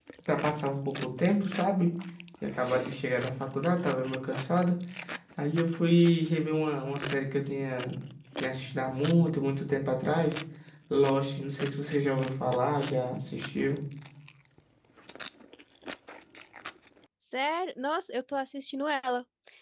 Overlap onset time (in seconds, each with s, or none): none